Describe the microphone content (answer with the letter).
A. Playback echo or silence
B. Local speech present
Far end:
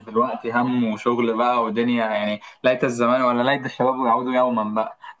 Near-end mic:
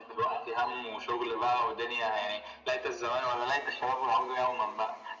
A